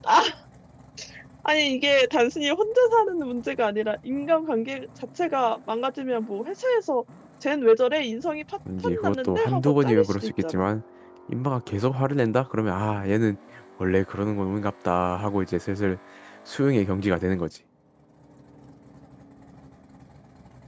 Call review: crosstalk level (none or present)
present